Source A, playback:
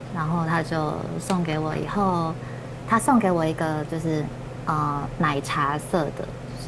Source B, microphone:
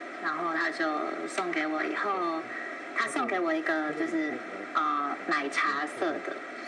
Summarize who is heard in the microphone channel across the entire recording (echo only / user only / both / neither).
both